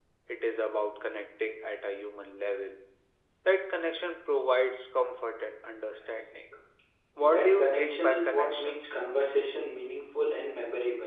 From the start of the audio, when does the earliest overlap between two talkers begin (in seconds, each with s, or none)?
7.2 s